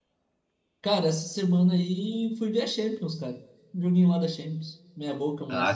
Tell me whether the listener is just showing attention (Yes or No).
No